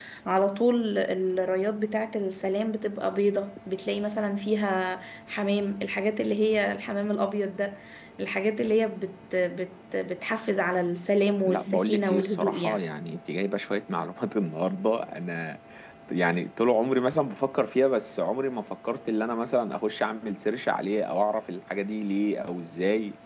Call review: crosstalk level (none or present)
present